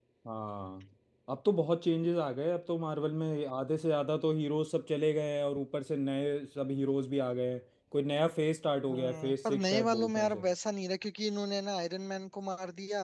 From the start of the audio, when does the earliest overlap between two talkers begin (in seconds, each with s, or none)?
8.9 s